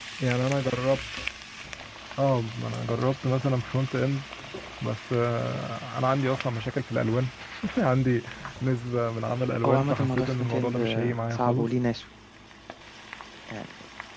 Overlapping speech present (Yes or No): Yes